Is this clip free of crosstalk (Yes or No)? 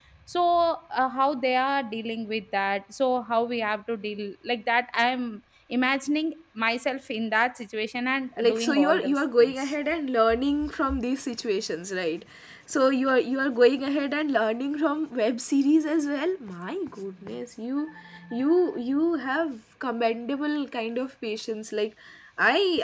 No